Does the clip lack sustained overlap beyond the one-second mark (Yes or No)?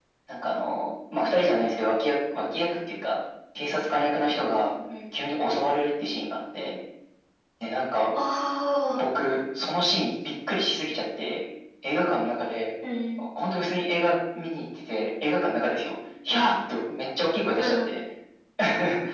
Yes